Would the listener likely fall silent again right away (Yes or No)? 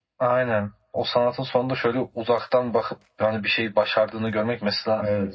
Yes